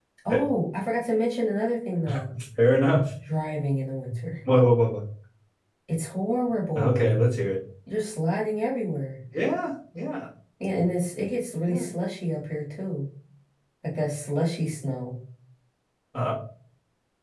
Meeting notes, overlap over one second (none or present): none